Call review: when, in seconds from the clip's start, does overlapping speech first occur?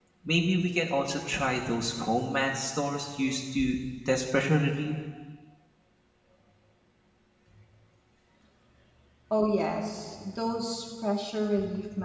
none

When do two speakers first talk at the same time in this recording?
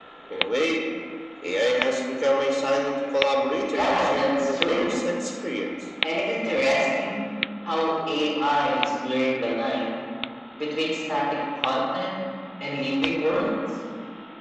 4 s

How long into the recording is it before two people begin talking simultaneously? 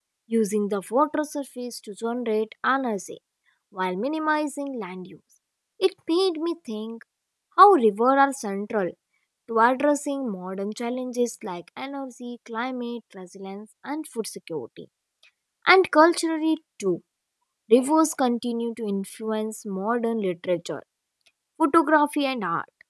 none

